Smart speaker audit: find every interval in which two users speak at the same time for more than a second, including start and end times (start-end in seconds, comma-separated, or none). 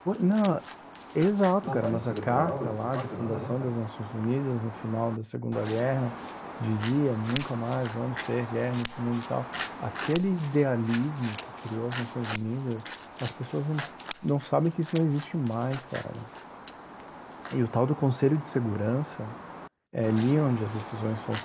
1.6-3.7